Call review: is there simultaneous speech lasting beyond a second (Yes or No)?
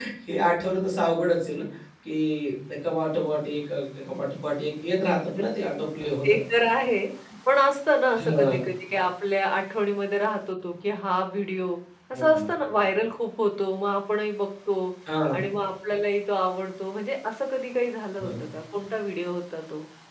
No